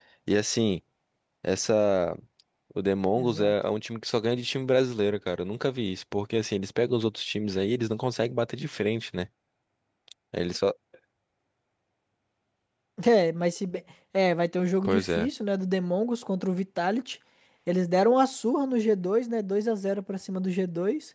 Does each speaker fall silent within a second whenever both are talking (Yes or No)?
Yes